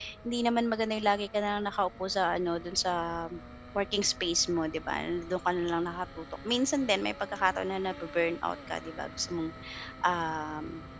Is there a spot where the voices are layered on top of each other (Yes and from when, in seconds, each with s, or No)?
No